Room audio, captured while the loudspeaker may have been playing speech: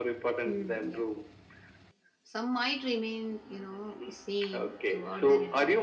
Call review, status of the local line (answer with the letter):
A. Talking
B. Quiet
A